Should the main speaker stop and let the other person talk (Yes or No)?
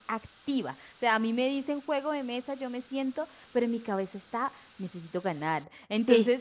No